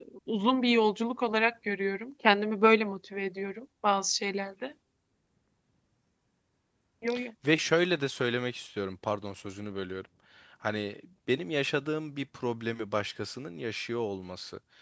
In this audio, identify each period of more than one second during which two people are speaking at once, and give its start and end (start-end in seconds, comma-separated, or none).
none